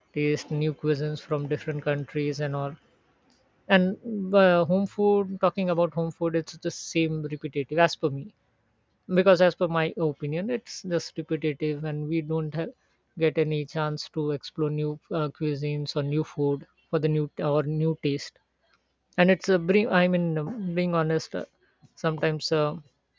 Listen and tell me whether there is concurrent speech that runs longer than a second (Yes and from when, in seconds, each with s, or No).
No